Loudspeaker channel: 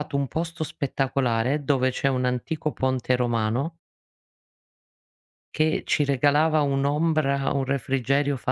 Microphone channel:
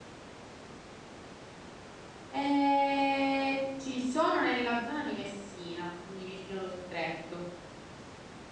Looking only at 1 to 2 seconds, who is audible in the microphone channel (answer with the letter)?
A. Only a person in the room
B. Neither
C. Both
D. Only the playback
B